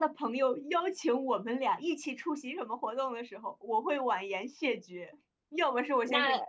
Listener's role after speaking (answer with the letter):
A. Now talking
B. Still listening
B